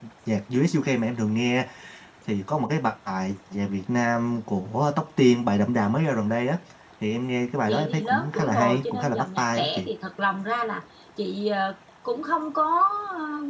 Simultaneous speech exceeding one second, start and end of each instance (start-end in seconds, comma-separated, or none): 7.7-9.9